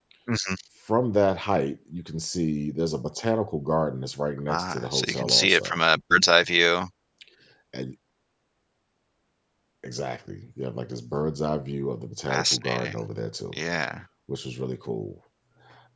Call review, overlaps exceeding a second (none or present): present